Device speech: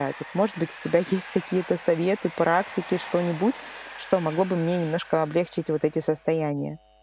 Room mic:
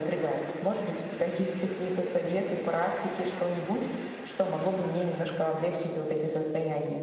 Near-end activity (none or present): none